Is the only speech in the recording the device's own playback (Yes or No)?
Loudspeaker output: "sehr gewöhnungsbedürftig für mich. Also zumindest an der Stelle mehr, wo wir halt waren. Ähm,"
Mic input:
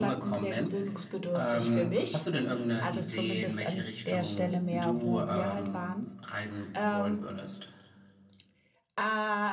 No